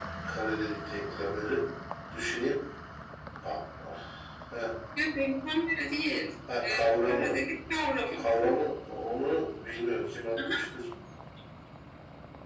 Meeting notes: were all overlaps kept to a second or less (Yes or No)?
Yes